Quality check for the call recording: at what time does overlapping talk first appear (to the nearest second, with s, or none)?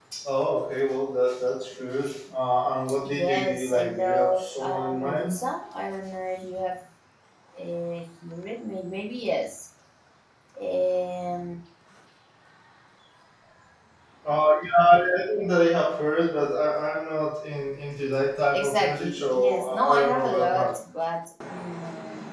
3 s